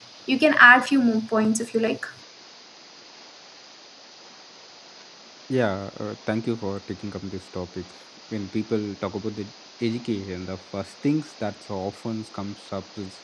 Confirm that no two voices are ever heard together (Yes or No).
Yes